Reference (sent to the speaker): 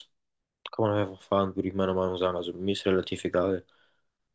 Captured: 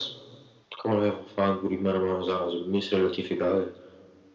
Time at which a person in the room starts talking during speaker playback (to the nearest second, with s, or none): none